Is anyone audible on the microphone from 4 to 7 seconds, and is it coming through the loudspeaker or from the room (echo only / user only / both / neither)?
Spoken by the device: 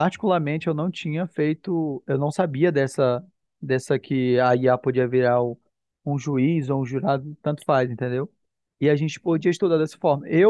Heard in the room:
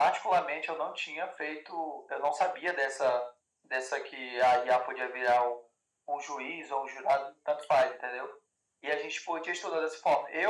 echo only